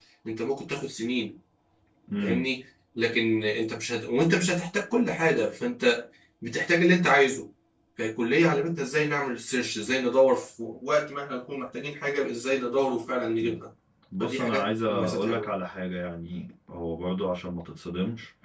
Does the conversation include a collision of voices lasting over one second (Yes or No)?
Yes